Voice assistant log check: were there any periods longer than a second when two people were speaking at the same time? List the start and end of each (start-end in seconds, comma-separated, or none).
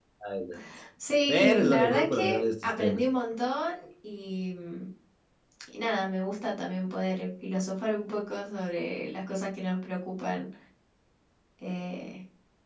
1.3-3.0